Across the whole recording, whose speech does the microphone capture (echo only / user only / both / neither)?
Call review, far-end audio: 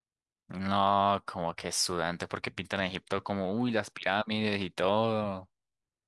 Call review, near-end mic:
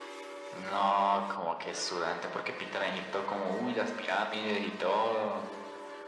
echo only